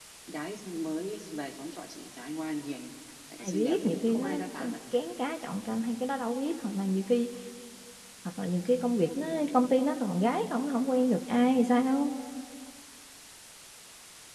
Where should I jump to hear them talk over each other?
3.4 s

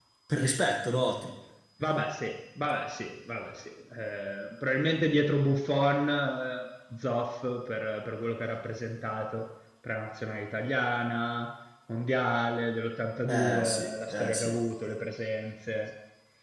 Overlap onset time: 13.3 s

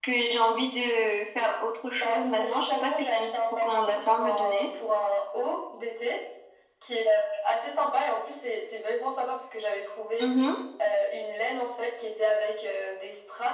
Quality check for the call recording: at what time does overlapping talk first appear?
1.9 s

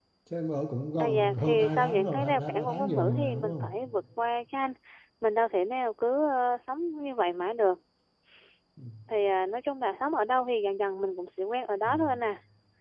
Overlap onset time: 1.0 s

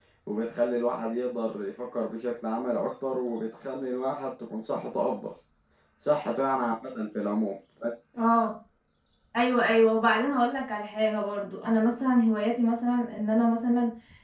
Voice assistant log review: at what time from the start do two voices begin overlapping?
none

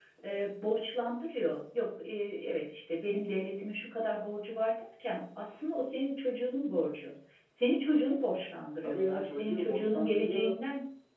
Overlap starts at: 8.8 s

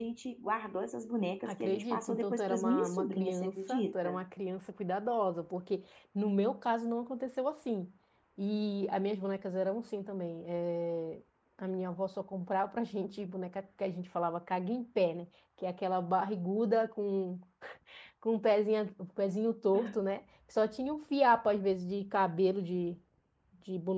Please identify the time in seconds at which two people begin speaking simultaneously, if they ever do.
1.4 s

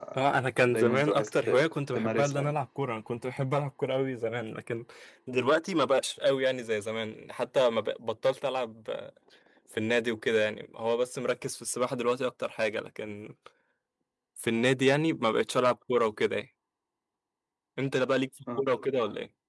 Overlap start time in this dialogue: 0.7 s

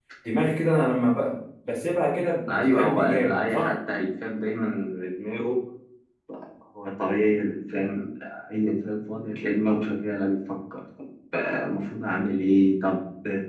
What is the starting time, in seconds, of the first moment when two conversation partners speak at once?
2.5 s

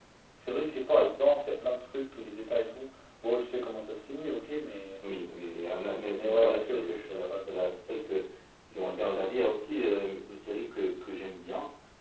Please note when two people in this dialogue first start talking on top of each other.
6.1 s

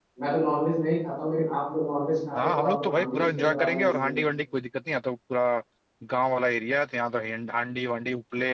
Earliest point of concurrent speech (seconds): 2.3 s

